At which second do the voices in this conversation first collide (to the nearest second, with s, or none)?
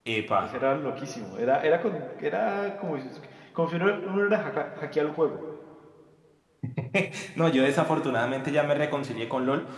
none